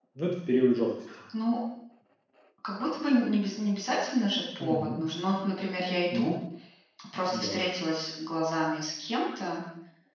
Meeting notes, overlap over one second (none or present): none